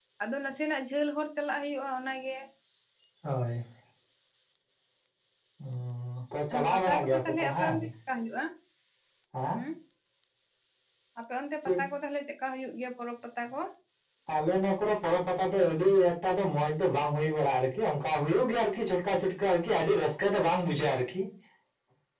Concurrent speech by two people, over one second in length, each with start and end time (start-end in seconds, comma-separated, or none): 6.5-7.8